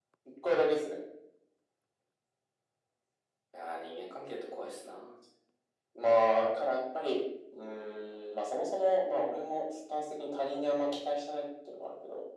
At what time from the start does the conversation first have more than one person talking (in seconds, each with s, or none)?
none